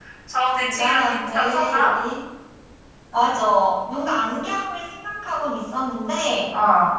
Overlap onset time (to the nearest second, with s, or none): 1 s